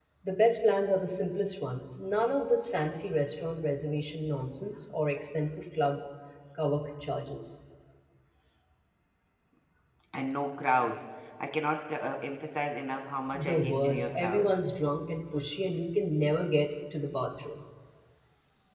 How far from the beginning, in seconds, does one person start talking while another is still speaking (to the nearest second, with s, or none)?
13 s